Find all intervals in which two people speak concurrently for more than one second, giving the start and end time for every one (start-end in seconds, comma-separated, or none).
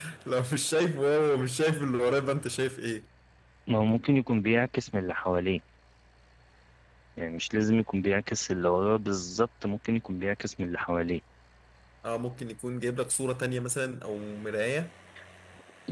none